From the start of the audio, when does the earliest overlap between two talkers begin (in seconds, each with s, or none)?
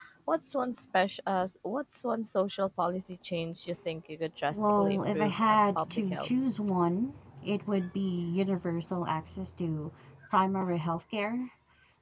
4.5 s